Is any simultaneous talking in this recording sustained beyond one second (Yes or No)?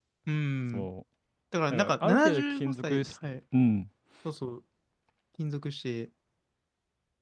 Yes